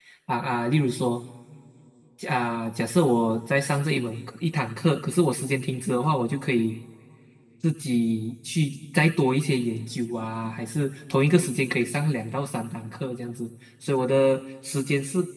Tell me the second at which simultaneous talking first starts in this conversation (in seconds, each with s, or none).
none